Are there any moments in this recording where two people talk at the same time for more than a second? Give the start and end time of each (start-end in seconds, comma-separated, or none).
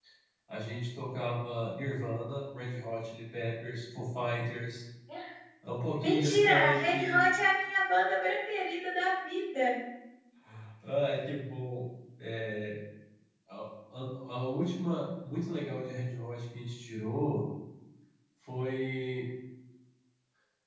6.0-7.2